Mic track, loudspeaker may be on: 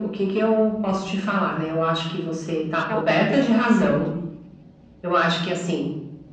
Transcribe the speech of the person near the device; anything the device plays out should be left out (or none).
Acho que ela estava bem nutrida de